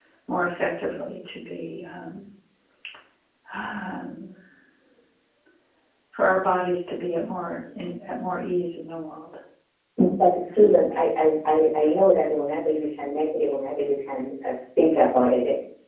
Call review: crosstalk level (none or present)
none